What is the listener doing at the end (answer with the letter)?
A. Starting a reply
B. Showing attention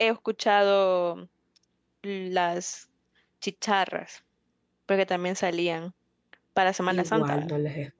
A